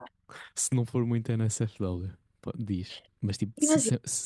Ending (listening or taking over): listening